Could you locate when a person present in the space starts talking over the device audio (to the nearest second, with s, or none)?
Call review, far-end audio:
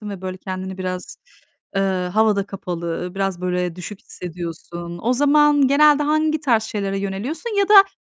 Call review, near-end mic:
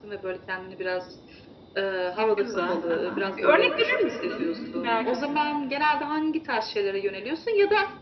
2 s